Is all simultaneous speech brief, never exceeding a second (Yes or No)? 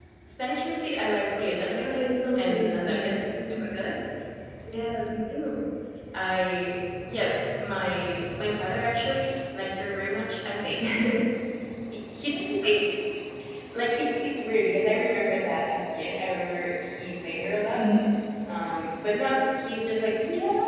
No